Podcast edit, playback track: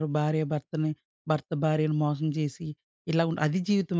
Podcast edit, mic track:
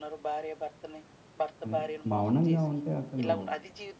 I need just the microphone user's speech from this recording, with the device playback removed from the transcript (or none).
అదే మౌనంగా ఉంటే అసలు